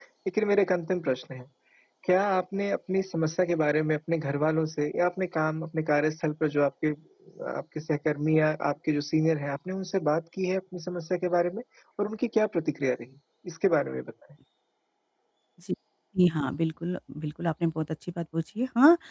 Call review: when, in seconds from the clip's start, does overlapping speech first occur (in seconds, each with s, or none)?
none